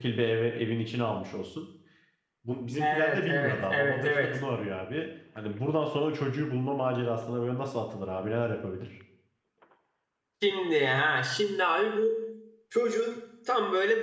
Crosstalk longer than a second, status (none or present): present